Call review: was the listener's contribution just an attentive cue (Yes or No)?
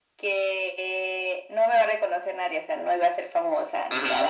No